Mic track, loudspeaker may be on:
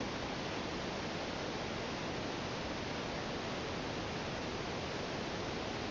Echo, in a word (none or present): none